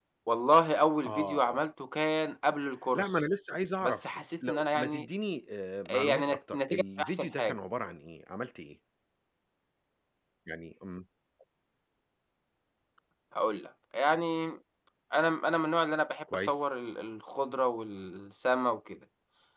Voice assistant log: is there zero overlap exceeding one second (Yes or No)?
No